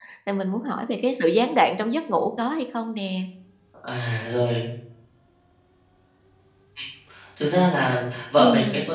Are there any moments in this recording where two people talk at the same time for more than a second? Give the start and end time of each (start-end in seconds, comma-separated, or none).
none